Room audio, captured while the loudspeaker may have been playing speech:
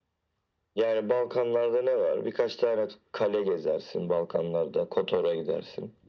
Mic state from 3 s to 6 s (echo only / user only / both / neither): echo only